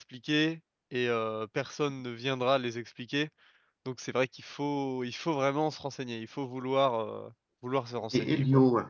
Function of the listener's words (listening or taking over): taking over